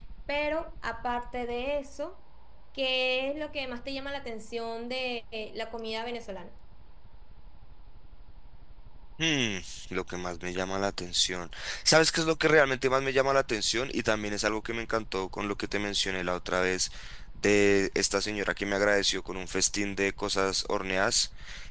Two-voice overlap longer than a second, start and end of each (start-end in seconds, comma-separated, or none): none